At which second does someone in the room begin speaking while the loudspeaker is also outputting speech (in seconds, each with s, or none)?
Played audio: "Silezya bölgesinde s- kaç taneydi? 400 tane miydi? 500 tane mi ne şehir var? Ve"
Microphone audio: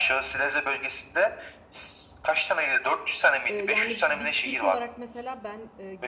3.5 s